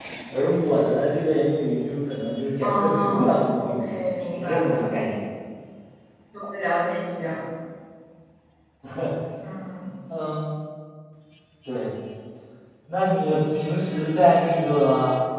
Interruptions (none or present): present